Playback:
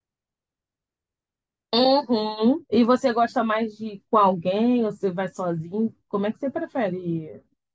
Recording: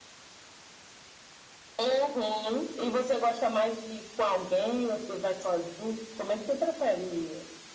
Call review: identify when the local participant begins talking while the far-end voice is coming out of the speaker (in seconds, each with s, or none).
none